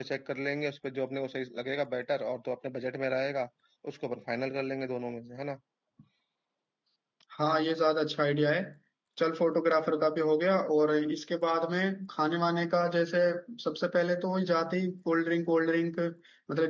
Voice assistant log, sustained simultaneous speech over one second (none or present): none